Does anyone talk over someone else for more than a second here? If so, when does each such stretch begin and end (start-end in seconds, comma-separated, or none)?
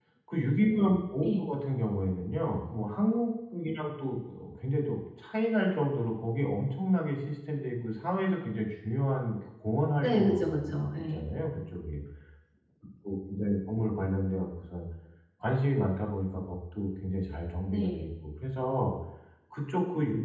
10.0-11.2